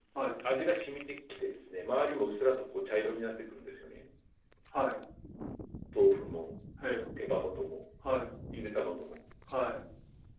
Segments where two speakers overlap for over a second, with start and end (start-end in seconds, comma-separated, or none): none